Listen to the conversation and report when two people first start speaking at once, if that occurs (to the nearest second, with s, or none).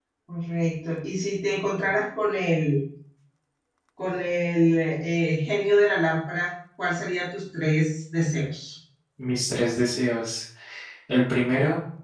none